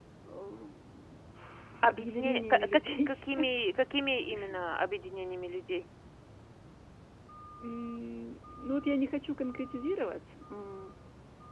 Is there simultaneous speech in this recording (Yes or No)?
Yes